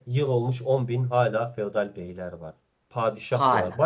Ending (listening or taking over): listening